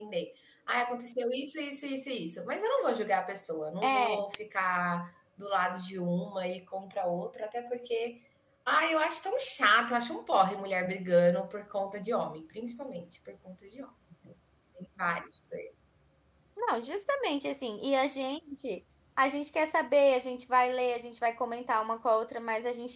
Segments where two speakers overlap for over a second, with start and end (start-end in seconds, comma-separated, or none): none